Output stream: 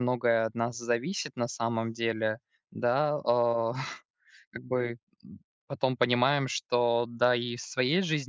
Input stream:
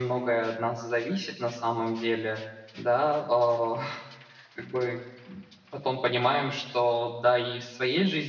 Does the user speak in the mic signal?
No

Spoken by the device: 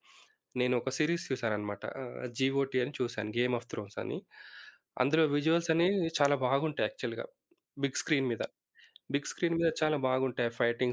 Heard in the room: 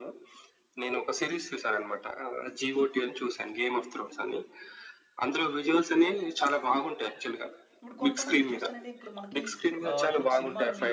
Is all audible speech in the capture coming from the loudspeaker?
No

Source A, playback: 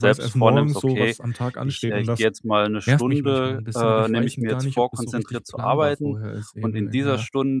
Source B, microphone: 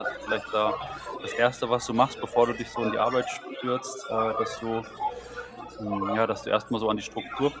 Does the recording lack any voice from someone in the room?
No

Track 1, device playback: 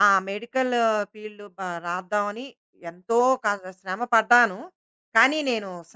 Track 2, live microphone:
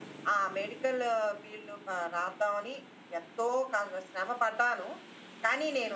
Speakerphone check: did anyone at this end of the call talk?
No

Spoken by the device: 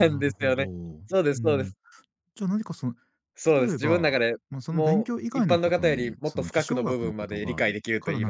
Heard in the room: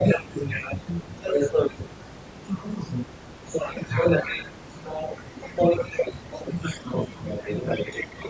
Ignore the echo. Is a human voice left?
No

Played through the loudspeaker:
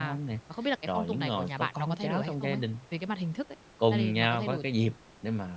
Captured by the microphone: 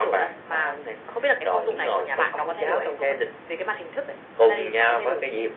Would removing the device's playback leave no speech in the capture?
Yes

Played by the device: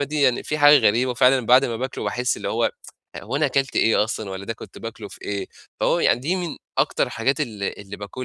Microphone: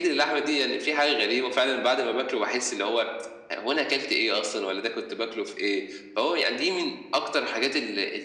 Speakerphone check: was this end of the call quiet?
Yes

